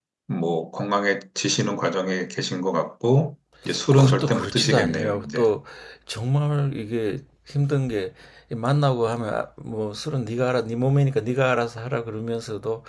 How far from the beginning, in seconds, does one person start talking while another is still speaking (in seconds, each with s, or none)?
3.7 s